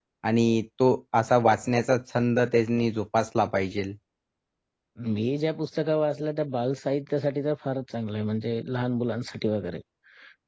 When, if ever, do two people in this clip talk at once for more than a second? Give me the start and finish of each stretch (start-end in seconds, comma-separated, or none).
none